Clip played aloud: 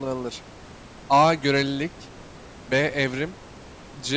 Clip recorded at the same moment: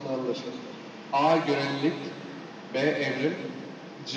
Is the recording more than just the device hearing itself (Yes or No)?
No